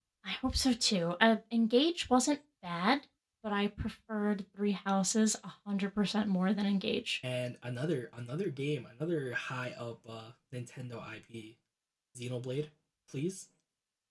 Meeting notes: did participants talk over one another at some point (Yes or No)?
No